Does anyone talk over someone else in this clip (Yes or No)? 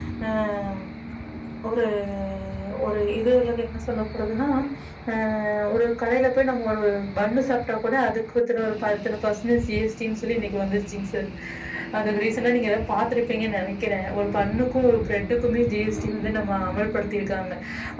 No